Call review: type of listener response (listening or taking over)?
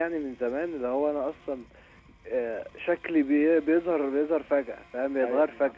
listening